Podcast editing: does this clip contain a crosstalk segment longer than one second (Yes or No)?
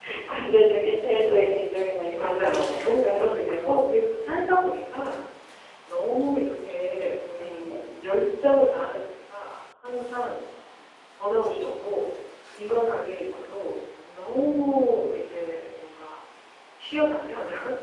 Yes